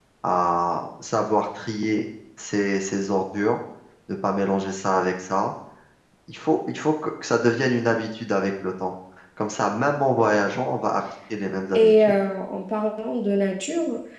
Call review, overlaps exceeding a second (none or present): none